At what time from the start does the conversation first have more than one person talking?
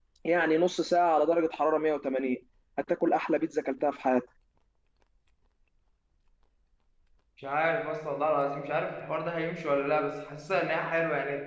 none

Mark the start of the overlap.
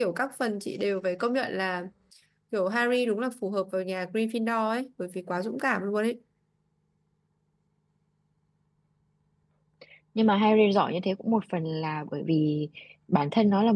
none

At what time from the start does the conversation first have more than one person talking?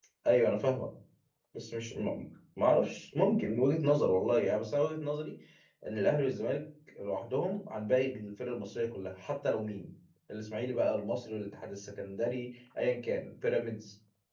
none

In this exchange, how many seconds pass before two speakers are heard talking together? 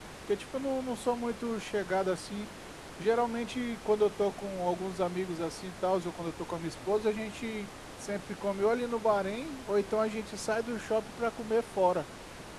none

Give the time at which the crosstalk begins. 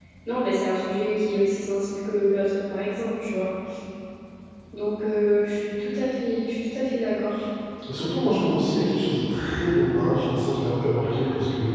none

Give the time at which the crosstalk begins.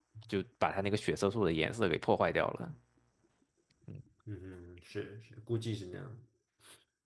none

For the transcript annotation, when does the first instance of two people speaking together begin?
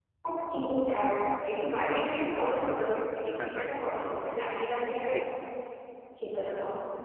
3.4 s

